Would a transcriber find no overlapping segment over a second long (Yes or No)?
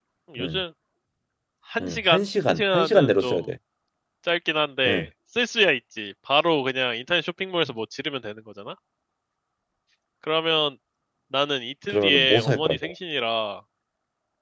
No